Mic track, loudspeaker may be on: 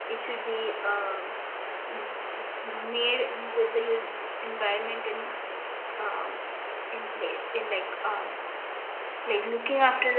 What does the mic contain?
user only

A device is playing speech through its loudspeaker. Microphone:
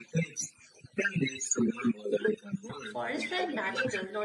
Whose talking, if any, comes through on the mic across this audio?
both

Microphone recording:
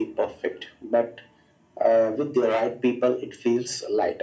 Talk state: echo only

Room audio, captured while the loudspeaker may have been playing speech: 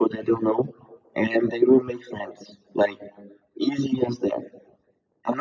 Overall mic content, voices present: echo only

